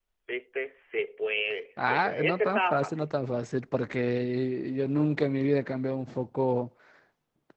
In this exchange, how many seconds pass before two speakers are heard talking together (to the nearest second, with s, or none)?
2 s